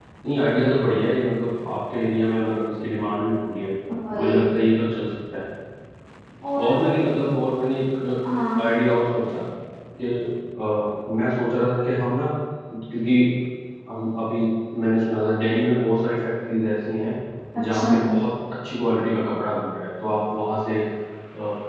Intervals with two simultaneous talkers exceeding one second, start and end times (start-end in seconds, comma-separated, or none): none